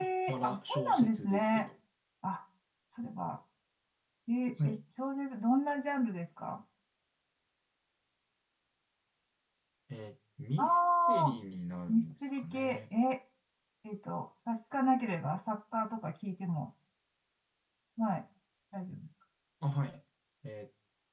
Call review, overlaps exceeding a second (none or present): present